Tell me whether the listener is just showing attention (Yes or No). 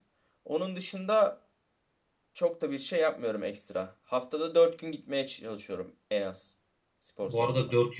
No